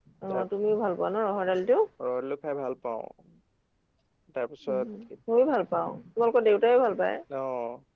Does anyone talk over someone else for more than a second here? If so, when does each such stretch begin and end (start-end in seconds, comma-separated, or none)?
none